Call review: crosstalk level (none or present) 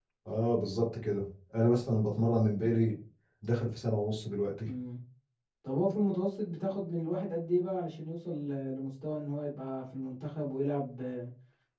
none